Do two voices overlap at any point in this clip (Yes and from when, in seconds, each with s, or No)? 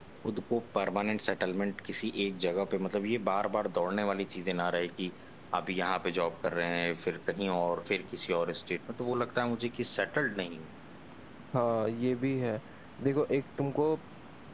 No